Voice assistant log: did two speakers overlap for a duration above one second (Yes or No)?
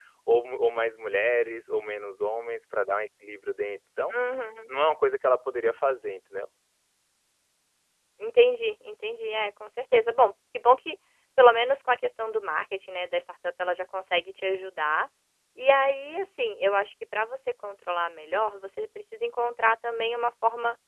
No